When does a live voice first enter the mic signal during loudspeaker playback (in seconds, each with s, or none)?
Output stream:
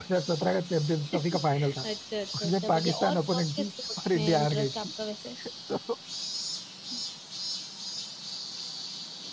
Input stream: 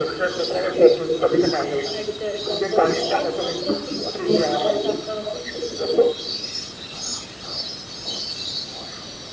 none